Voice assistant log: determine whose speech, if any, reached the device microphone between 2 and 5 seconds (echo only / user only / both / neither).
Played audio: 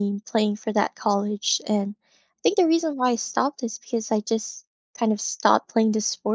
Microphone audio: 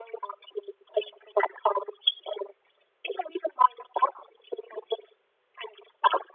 echo only